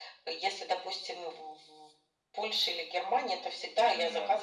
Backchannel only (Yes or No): Yes